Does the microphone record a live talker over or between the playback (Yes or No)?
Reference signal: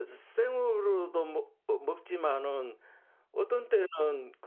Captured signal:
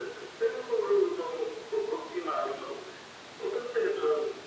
No